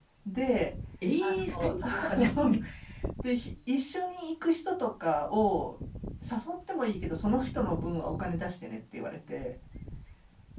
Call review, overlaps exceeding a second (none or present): present